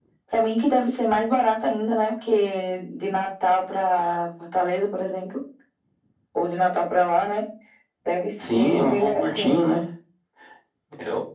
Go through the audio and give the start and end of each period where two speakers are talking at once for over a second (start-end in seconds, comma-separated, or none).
8.4-9.8